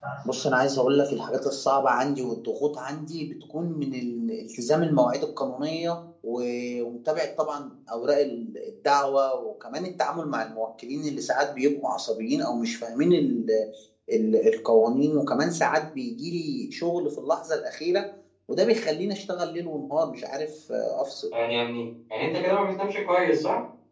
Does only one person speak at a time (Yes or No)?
Yes